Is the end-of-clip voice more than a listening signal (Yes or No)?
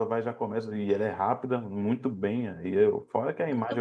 No